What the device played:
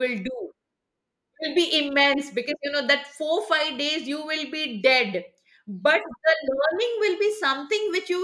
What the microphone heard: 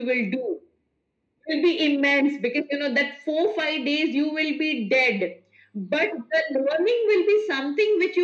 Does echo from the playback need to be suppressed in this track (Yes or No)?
Yes